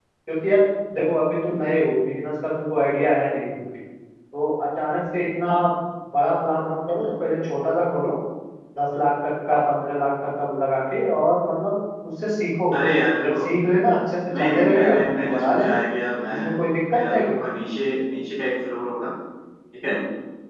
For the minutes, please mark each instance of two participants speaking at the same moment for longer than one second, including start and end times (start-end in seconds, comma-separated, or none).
14.3-15.8